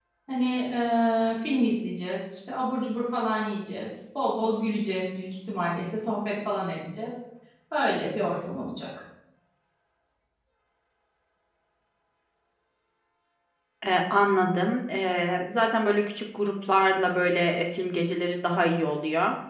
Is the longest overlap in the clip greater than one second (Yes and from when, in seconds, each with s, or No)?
No